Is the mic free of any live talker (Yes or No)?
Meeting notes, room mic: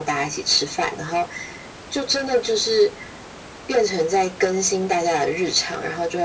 Yes